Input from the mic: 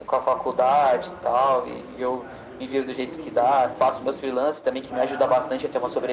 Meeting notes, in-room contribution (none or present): present